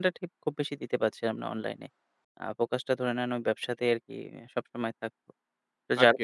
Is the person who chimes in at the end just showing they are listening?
Yes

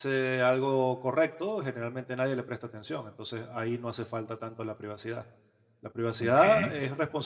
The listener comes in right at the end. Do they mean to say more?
No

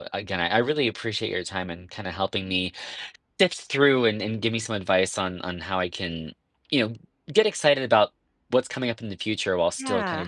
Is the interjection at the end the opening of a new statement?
No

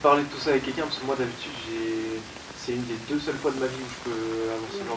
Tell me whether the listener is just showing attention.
No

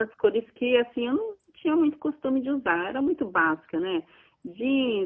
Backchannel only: Yes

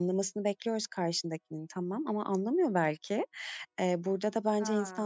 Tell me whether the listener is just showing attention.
Yes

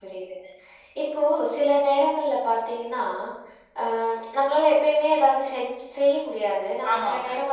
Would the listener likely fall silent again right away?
Yes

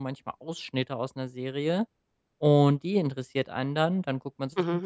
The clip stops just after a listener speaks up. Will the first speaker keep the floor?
Yes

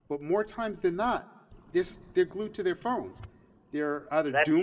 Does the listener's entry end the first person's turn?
No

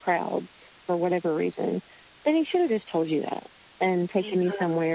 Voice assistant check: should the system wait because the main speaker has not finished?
Yes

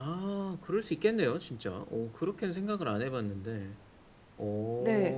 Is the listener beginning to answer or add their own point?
Yes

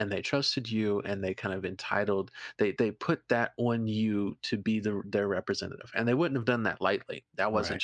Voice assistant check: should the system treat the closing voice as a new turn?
No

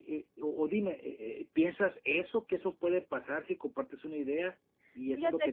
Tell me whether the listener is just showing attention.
Yes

